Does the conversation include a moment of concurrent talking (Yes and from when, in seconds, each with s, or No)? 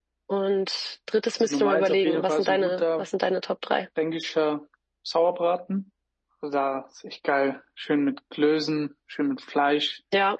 Yes, from 1.4 s